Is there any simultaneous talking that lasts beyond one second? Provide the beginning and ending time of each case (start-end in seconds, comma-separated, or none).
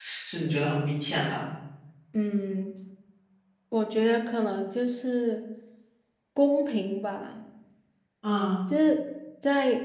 none